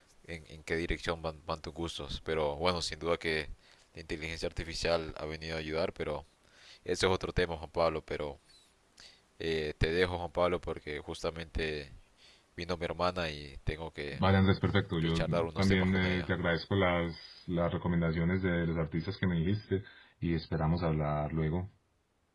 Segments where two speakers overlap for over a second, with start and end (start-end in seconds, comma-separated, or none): 15.0-16.3